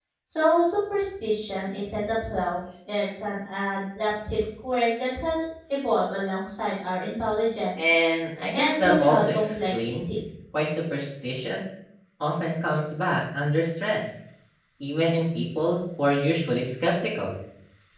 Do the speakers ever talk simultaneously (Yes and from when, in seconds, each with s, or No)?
Yes, from 8.5 s